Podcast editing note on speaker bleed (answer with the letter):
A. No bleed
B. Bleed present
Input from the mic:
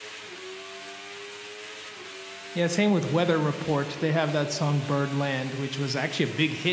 A